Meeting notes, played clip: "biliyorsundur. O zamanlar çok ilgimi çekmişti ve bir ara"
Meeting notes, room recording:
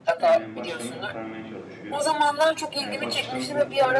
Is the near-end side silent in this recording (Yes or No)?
No